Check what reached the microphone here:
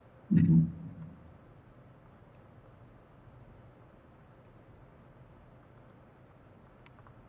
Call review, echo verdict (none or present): none